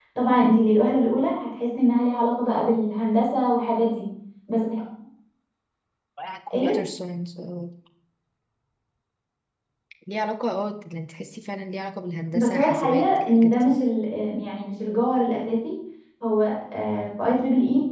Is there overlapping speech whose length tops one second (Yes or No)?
Yes